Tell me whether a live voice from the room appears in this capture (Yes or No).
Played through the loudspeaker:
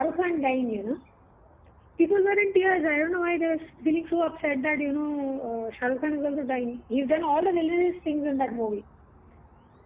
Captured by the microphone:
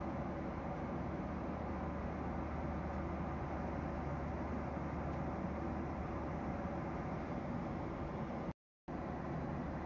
No